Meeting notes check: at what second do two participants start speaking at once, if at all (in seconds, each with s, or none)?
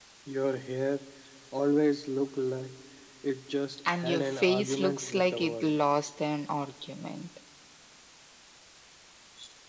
4.0 s